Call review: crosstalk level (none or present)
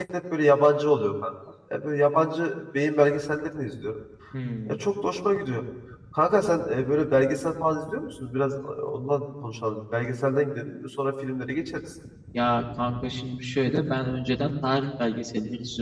none